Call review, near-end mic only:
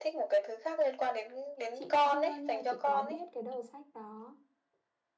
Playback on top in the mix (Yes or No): Yes